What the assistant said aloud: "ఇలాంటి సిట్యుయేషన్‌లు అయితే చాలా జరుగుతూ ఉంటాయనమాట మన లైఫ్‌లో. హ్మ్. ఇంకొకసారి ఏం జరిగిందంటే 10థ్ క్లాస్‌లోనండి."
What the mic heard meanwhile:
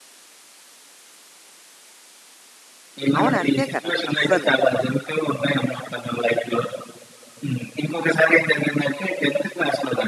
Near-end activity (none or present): present